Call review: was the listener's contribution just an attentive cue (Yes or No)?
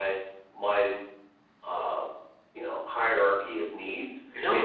No